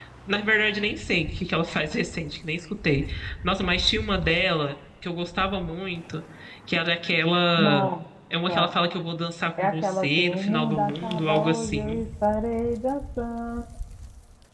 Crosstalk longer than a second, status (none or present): present